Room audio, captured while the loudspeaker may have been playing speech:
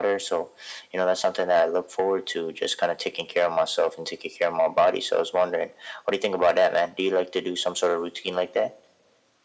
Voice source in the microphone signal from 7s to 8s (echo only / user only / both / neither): echo only